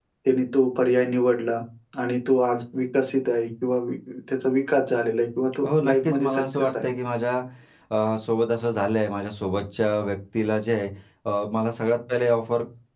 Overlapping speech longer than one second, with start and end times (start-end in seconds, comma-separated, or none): 5.6-6.8